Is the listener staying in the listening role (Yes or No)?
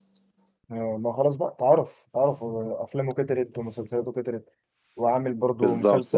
No